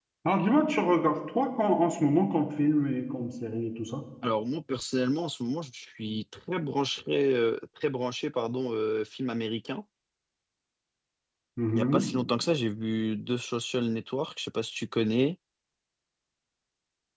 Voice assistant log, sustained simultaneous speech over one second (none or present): none